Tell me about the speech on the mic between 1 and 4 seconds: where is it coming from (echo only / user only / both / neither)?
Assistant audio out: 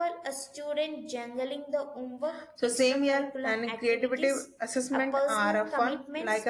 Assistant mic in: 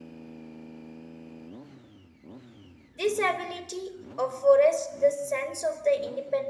user only